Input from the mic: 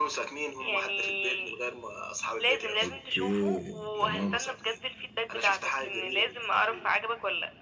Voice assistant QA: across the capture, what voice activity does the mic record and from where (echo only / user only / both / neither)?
both